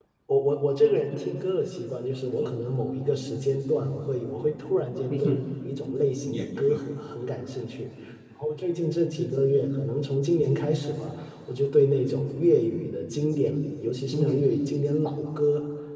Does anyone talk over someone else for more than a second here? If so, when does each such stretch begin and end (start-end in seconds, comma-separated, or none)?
none